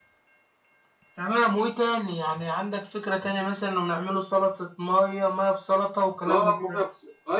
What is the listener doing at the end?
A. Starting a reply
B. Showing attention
A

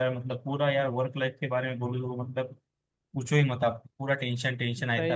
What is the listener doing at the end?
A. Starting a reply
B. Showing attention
A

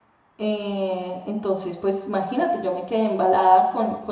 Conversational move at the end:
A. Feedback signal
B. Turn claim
A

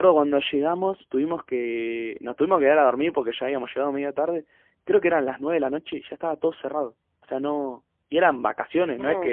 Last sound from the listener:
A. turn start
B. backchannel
B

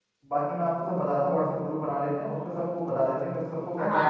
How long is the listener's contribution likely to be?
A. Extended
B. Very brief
A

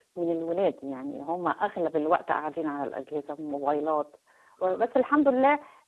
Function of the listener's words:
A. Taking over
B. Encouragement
B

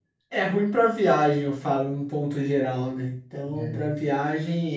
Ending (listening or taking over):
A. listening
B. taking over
A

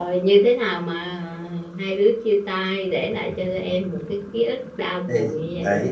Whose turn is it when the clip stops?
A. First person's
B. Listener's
B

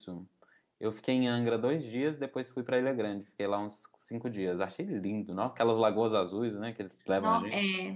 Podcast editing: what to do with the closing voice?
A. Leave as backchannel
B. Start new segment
B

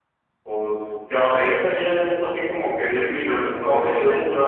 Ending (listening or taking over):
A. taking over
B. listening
A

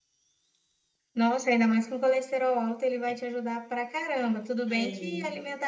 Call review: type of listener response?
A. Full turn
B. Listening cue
B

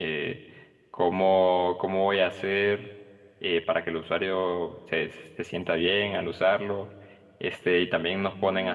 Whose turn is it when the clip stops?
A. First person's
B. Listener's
A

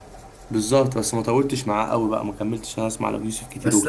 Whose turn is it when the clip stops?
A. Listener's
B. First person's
A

